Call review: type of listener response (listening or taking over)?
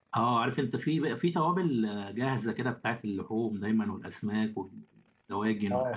taking over